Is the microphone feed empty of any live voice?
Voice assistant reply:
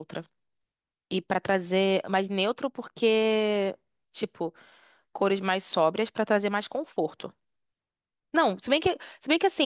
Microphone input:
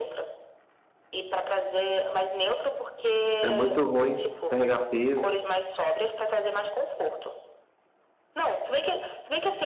No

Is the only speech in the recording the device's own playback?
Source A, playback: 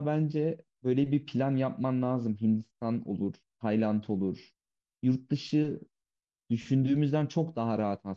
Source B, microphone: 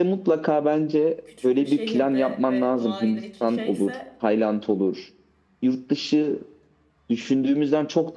No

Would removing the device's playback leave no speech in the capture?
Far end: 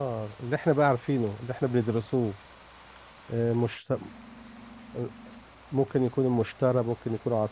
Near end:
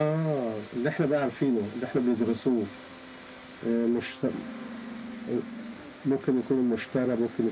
Yes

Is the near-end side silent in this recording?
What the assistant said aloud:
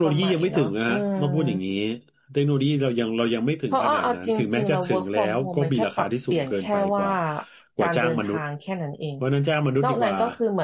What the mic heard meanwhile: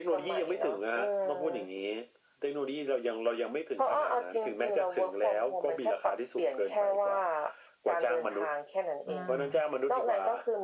No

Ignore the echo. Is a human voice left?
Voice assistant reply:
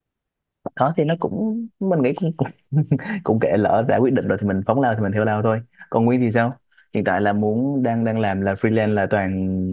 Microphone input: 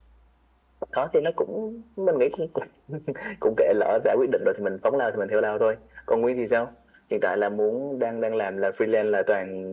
No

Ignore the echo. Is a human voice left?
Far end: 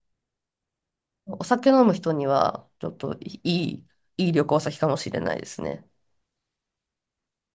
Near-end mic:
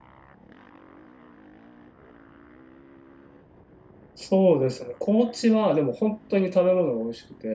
Yes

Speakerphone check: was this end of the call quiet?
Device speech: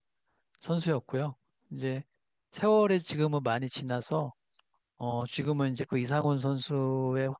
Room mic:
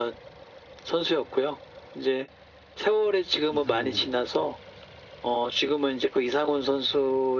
No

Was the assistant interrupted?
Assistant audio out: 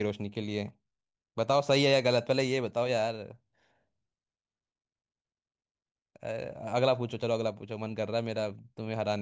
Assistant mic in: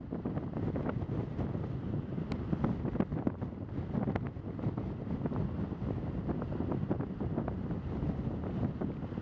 No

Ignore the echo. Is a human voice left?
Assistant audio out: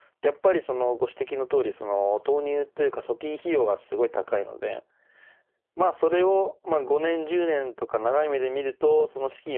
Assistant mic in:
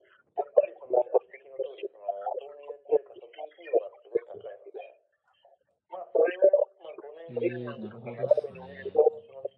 Yes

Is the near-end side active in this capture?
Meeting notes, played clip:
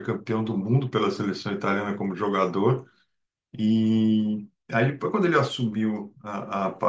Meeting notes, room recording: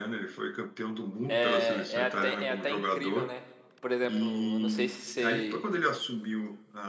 Yes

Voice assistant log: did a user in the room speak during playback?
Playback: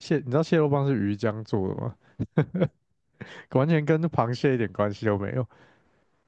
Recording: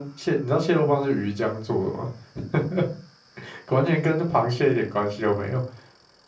No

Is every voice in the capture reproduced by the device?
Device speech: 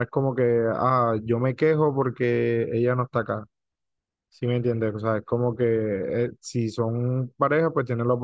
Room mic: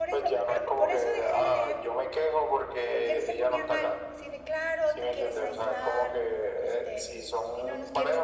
No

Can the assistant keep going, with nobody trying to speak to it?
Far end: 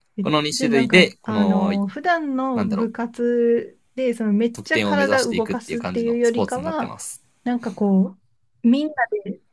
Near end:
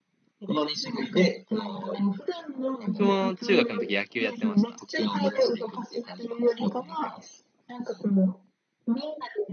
No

